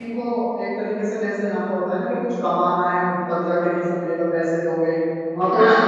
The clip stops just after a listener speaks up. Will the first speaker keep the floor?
Yes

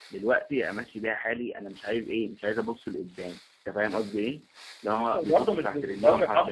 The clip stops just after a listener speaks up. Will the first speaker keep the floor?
No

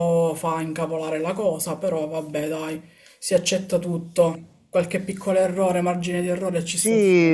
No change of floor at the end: No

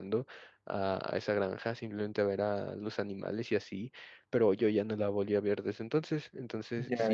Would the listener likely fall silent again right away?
Yes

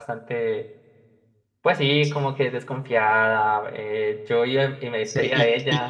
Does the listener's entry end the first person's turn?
Yes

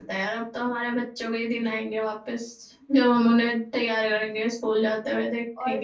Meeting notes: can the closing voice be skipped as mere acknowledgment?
No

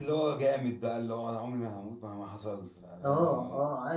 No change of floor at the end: No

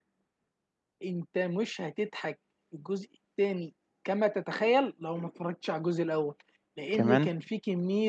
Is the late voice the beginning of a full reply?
No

